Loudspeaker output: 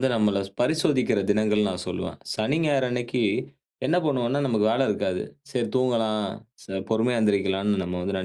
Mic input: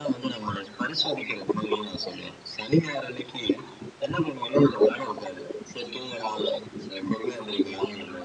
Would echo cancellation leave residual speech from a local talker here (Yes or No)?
No